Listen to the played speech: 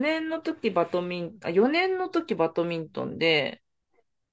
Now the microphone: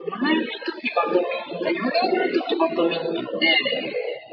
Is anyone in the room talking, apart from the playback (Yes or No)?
No